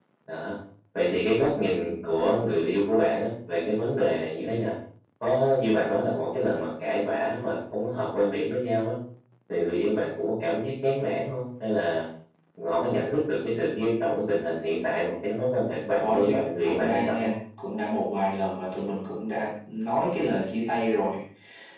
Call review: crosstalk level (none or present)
present